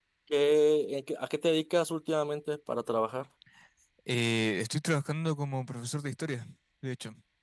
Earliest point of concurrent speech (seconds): none

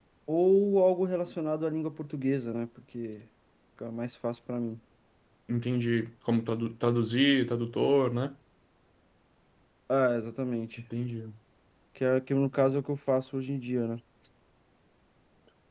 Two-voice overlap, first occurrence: none

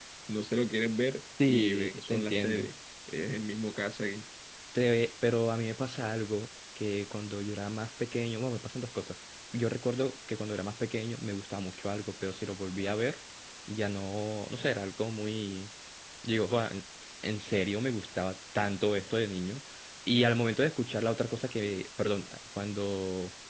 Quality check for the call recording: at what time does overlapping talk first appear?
1.4 s

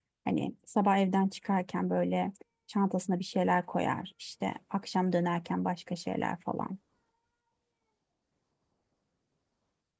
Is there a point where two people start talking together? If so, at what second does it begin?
none

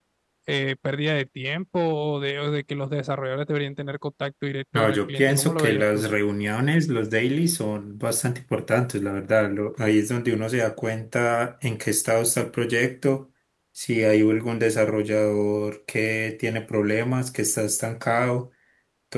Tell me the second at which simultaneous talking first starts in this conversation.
4.7 s

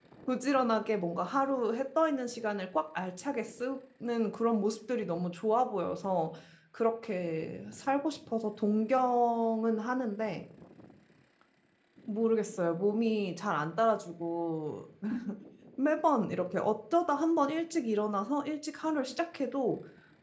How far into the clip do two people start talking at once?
none

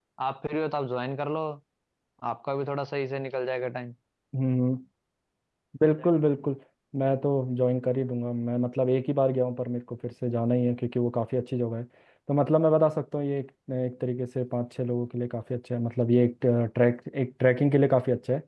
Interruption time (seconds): none

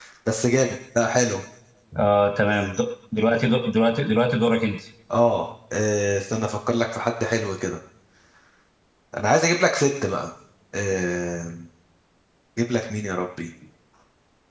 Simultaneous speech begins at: none

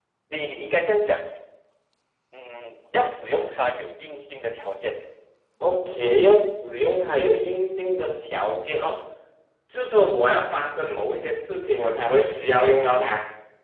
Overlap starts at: none

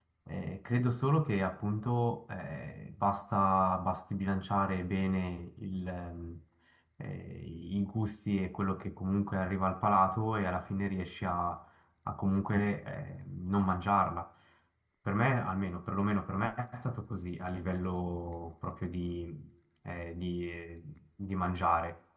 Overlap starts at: none

